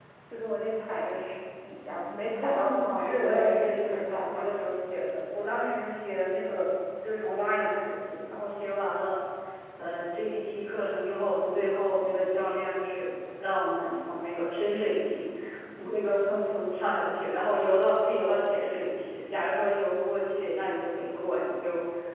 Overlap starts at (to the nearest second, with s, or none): 2 s